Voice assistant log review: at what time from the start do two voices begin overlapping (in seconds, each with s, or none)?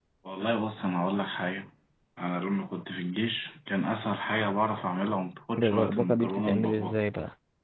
5.6 s